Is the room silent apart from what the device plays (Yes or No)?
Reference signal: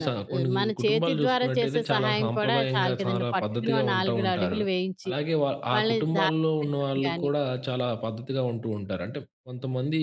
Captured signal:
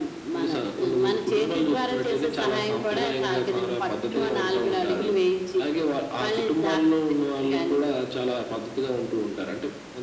Yes